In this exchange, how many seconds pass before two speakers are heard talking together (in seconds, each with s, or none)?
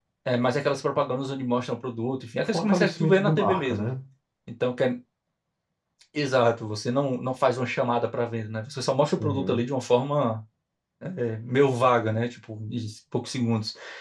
2.4 s